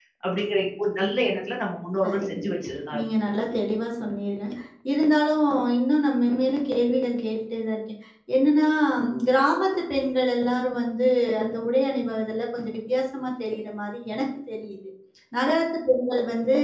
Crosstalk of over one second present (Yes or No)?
No